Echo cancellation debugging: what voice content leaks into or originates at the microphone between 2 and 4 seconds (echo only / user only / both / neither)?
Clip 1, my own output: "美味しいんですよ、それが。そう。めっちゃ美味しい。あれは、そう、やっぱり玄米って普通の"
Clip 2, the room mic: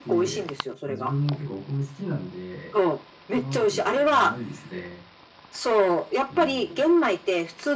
both